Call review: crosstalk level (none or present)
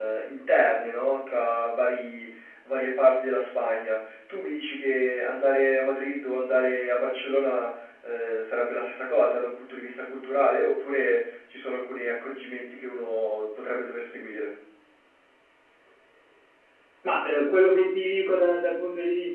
none